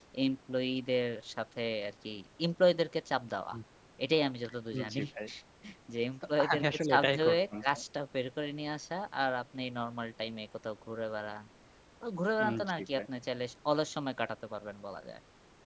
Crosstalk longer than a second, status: present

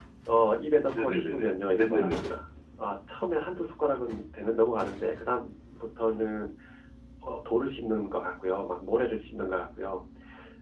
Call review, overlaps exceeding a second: present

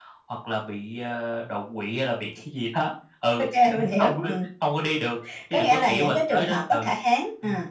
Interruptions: present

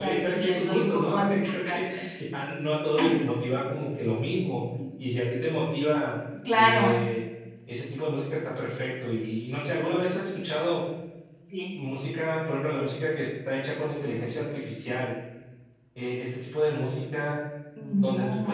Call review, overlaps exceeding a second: present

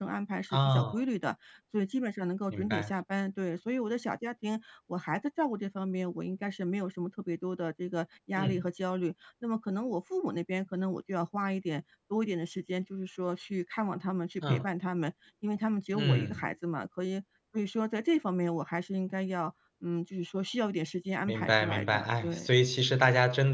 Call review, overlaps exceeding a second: present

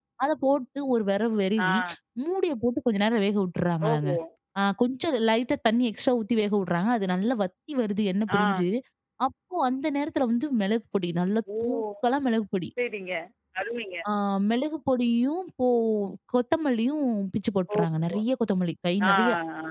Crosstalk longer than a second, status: none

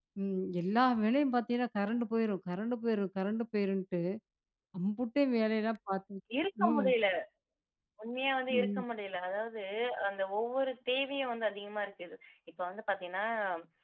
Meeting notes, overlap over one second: none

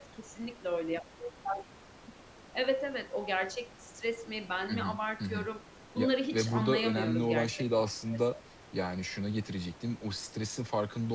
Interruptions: present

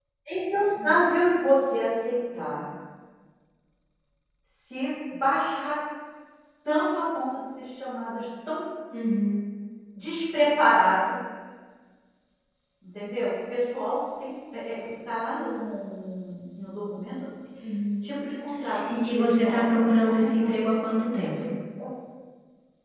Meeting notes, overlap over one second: present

